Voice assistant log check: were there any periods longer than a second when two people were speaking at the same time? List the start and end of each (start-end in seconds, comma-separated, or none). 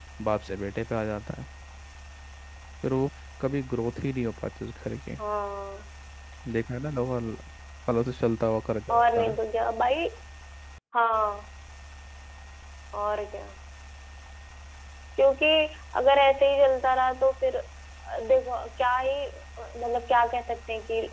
none